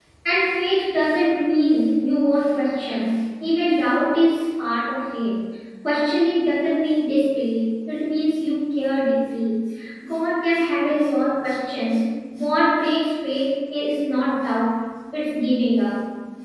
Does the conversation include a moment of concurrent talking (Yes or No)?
No